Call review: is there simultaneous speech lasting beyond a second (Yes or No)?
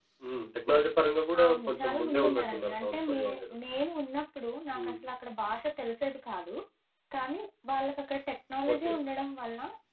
Yes